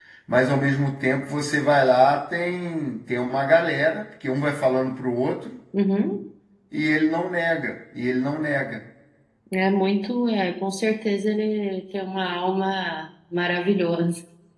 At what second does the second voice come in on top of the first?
none

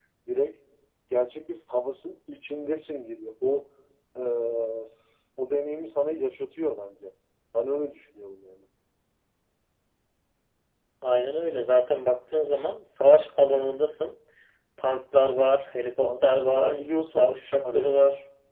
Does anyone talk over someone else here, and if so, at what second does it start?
16.0 s

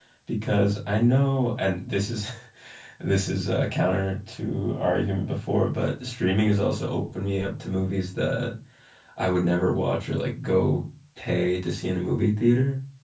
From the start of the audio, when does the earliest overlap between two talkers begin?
none

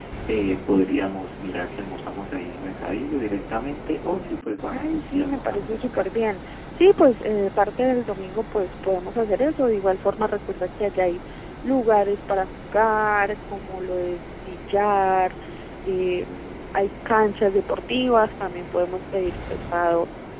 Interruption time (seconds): 4.7 s

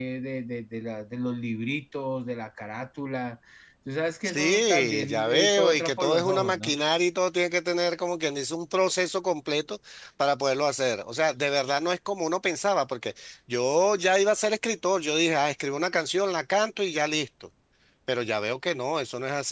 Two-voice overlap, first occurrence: 4.3 s

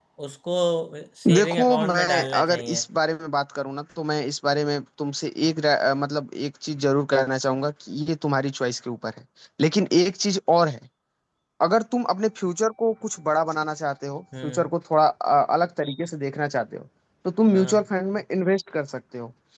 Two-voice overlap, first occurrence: 1.3 s

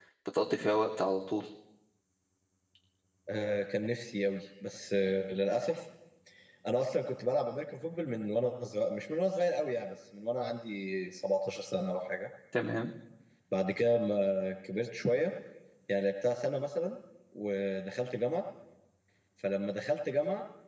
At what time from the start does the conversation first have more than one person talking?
none

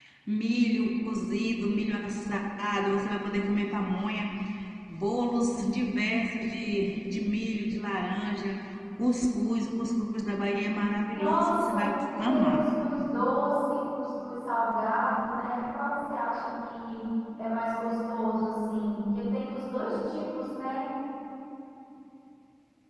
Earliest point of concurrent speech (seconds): 11.1 s

